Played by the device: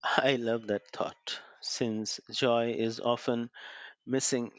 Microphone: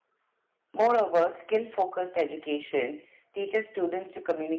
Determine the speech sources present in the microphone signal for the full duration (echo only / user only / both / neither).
user only